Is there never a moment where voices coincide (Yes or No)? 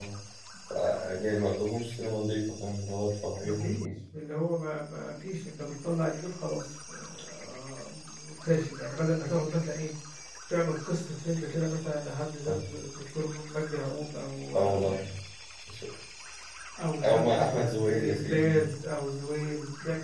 No